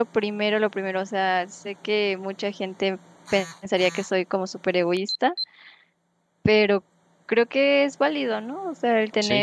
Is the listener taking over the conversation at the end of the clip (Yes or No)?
No